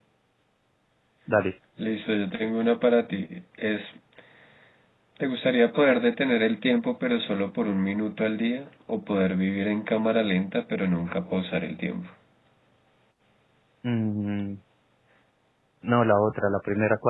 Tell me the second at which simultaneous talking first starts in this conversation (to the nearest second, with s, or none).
none